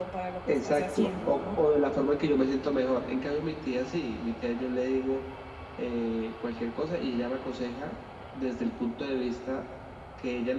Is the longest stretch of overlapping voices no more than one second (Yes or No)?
No